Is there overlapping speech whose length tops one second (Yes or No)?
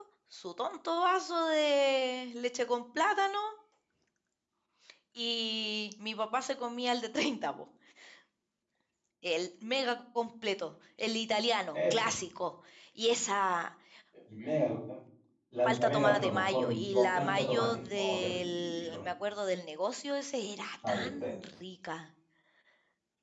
Yes